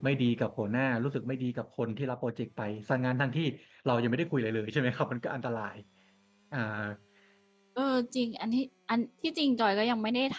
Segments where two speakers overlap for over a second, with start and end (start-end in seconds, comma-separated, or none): none